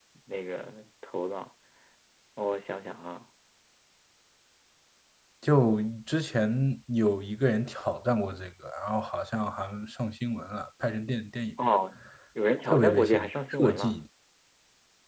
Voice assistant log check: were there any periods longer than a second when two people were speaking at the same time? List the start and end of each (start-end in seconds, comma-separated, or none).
12.6-14.0